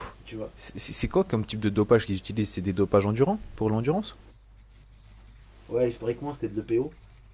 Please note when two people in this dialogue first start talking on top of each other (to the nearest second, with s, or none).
none